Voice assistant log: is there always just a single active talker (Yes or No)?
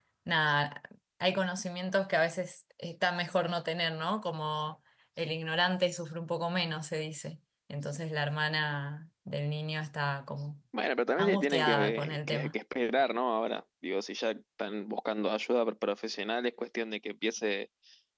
No